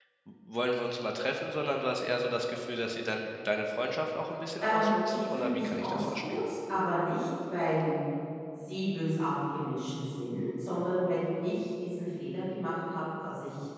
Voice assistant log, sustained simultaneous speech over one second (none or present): present